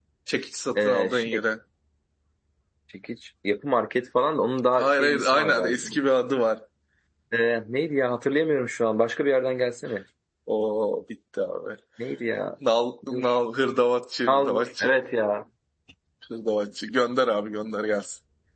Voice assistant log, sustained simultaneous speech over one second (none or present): present